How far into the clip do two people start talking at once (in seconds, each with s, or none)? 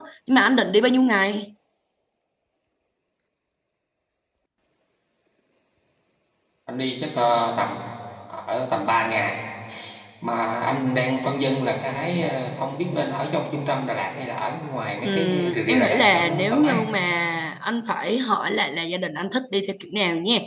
15.0 s